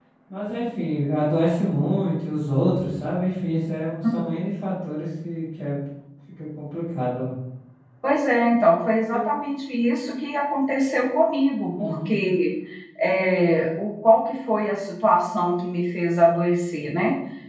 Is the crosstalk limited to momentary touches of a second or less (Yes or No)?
Yes